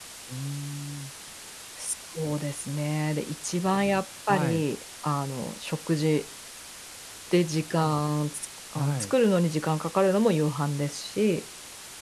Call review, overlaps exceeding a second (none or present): none